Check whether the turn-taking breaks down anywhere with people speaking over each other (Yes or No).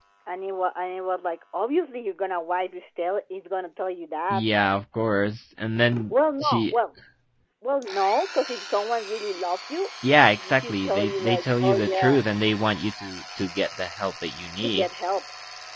Yes